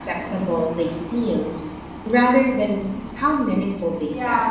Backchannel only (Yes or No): No